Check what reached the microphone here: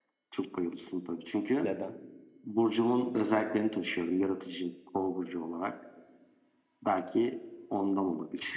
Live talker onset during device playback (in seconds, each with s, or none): 1.6 s